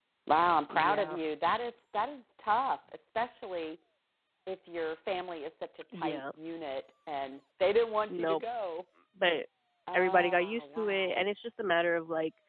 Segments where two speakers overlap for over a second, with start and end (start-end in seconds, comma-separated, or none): 9.9-11.2